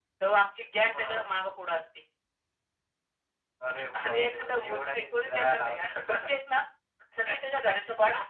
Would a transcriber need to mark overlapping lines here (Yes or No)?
Yes